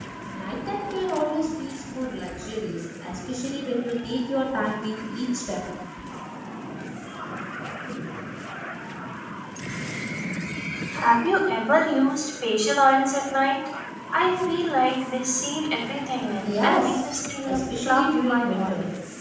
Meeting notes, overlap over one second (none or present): present